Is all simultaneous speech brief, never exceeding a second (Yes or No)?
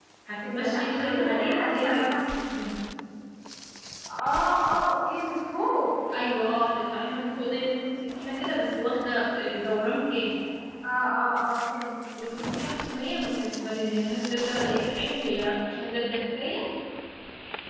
No